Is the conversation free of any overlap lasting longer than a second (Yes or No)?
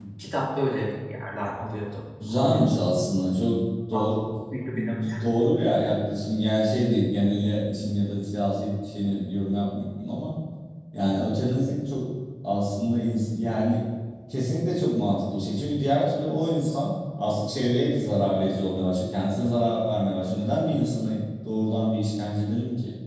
Yes